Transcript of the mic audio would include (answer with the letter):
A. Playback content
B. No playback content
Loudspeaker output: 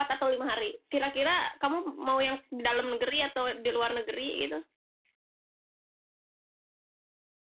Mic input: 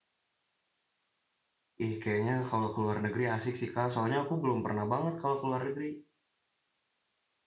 B